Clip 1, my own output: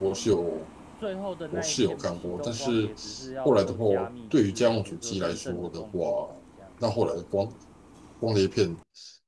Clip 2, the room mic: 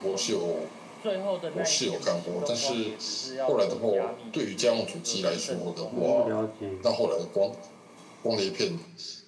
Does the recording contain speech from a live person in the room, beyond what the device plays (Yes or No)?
Yes